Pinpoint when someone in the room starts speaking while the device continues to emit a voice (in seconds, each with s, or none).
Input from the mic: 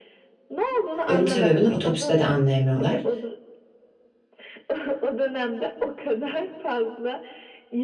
1.1 s